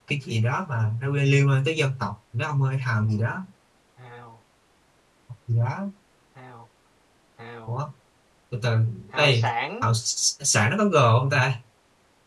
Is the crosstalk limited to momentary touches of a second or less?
Yes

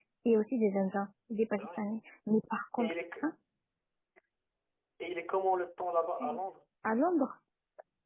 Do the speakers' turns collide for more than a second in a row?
No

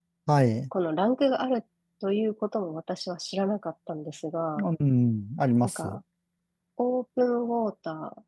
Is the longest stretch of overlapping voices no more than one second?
Yes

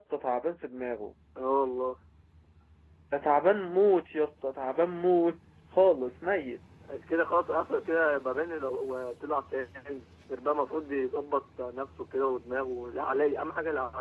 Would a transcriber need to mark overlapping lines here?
No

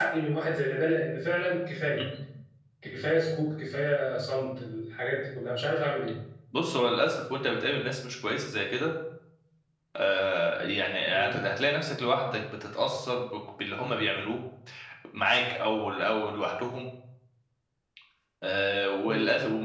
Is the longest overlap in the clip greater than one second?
No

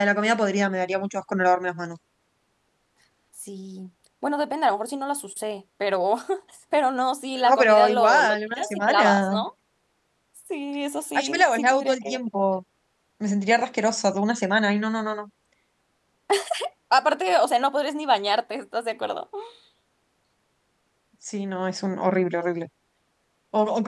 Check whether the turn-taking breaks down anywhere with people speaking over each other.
Yes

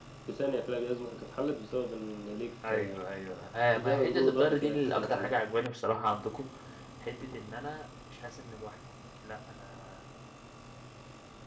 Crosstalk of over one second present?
Yes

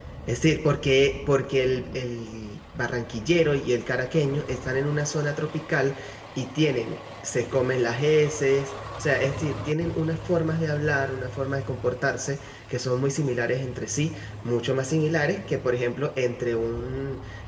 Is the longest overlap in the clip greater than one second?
No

